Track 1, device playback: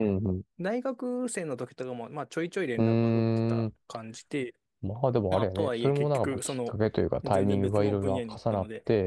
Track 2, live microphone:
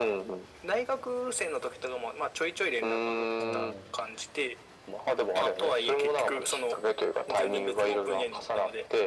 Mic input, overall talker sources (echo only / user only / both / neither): both